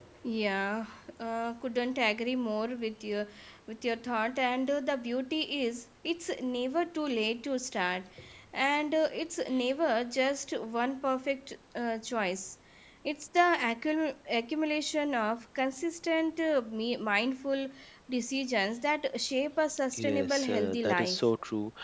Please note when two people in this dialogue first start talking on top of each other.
19.9 s

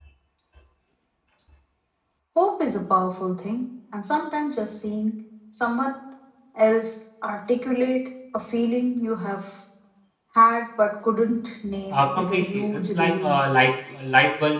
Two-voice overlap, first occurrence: 11.9 s

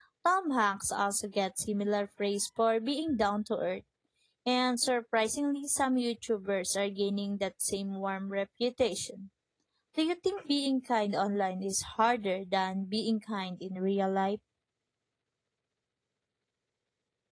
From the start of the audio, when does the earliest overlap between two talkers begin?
none

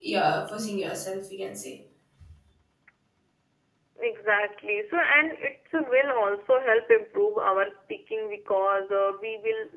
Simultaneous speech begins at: none

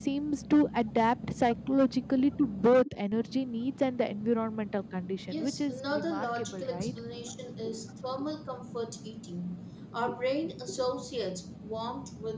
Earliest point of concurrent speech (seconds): 5.3 s

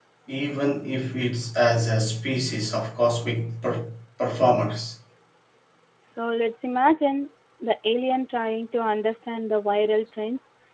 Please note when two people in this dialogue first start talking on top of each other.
none

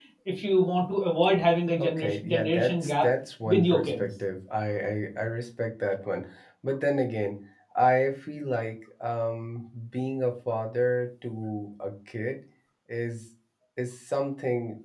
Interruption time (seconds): 1.8 s

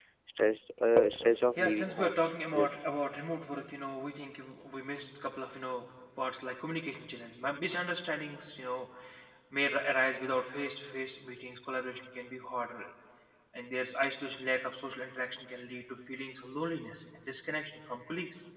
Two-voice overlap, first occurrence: 1.6 s

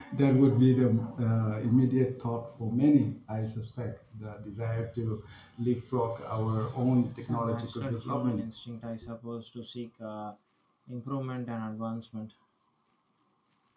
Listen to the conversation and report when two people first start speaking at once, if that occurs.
7.0 s

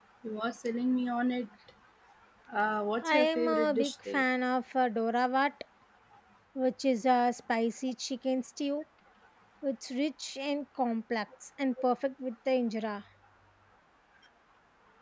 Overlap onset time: 3.0 s

